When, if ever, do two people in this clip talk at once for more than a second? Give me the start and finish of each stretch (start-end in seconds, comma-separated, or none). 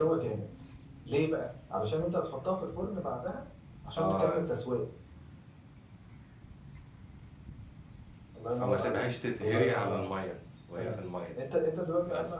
8.5-10.1